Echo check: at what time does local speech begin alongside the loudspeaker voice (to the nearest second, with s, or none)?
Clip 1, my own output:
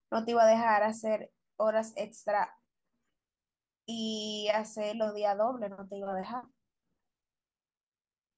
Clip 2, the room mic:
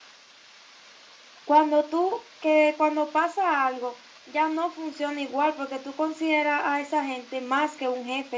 1 s